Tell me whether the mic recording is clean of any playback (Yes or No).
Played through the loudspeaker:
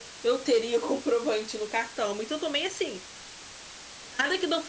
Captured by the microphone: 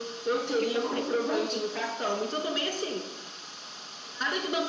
No